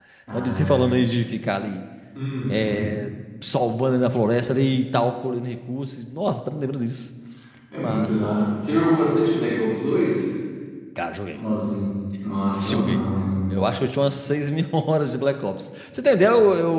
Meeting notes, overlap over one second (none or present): none